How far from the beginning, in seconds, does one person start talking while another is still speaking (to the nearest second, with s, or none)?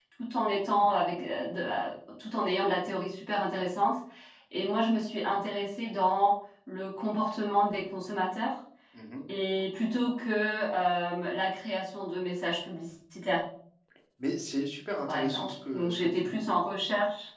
15 s